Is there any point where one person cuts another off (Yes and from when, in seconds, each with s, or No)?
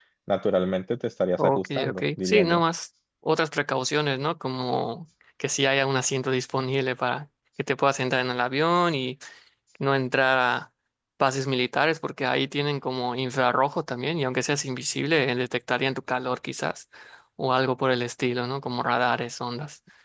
Yes, from 1.4 s